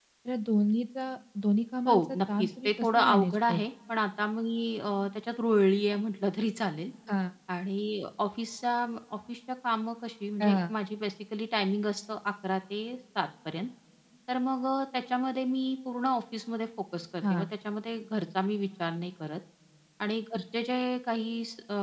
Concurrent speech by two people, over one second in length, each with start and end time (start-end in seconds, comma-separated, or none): 1.9-3.6